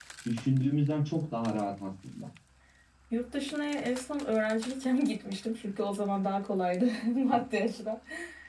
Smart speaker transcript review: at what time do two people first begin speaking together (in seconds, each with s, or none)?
none